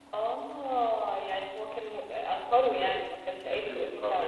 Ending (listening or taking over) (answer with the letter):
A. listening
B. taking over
B